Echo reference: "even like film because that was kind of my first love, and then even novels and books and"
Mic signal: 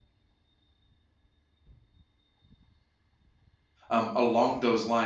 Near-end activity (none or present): present